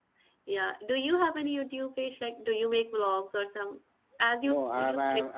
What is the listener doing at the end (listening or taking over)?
taking over